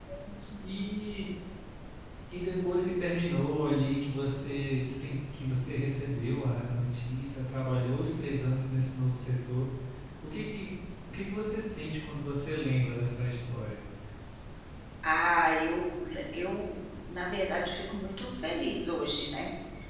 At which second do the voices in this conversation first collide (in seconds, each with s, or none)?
none